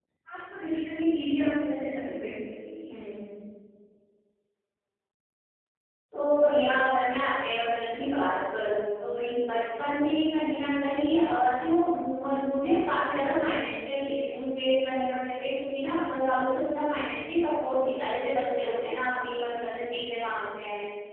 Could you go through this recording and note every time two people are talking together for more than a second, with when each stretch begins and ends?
none

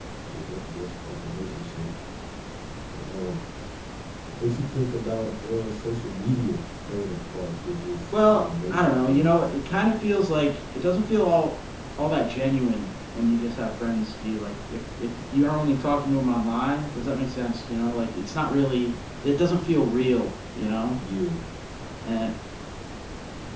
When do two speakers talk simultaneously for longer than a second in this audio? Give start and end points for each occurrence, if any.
8.1-9.4

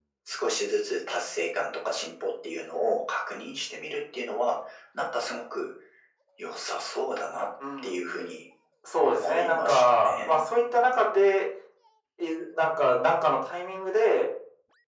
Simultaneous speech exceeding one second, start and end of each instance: 9.0-10.4

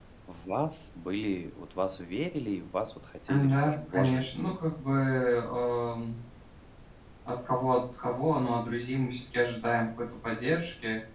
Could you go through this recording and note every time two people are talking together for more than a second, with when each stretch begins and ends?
3.3-4.5

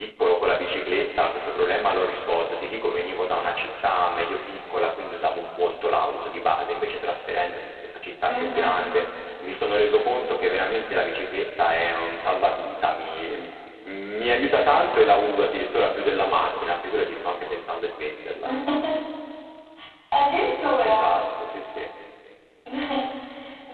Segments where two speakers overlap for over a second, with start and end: none

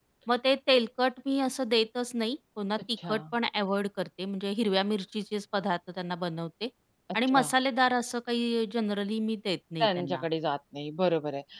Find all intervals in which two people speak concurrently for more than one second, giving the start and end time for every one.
none

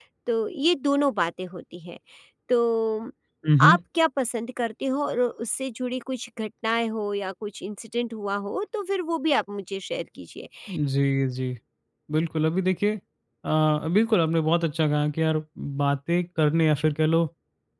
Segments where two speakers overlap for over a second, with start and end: none

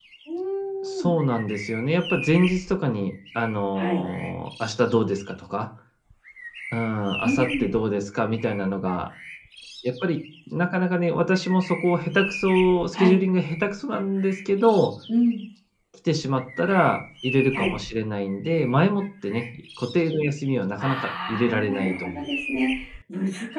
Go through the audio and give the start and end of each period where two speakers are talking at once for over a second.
20.8-22.3

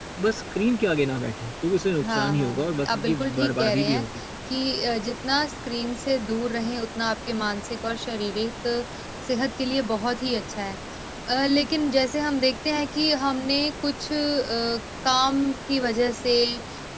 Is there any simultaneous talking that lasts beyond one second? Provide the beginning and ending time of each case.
2.0-4.0

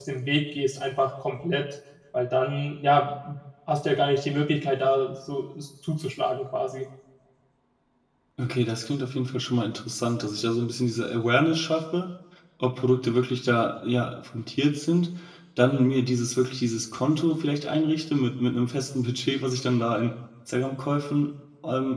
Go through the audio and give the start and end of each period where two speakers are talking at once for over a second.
none

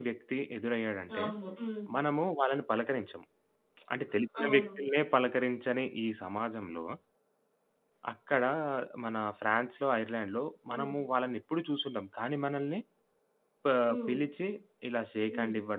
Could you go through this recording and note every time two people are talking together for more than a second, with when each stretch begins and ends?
none

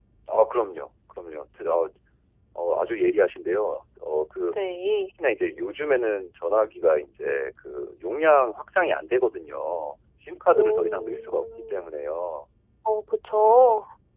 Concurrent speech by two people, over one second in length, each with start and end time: 10.6-11.9

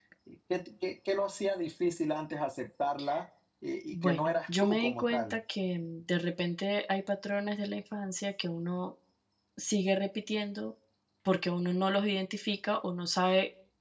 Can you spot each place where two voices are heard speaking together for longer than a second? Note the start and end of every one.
3.9-5.4

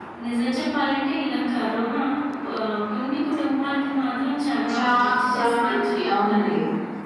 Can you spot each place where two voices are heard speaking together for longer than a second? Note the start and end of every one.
4.7-6.5

